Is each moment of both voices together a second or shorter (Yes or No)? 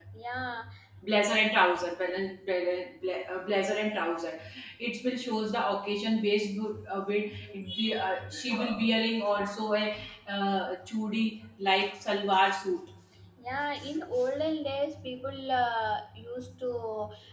Yes